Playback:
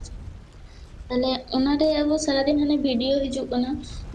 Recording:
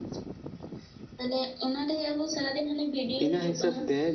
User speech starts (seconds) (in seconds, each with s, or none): 3.2 s